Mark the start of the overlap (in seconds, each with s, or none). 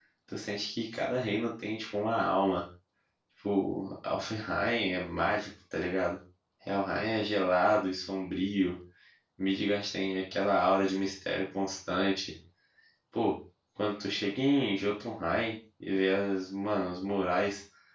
none